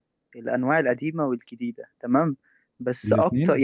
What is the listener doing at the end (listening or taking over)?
listening